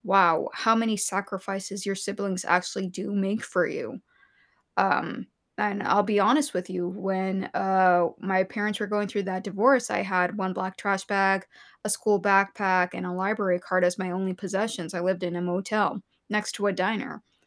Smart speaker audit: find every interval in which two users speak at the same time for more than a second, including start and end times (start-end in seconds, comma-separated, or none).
none